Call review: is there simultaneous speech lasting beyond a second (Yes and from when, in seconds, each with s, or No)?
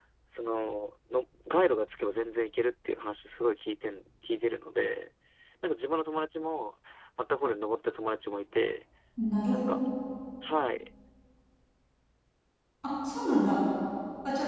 No